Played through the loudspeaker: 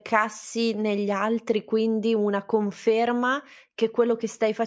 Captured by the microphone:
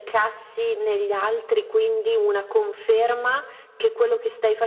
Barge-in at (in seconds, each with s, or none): none